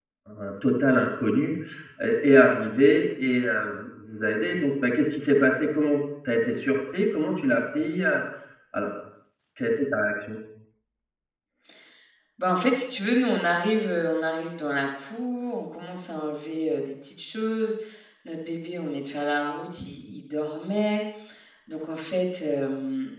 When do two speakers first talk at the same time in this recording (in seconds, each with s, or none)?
none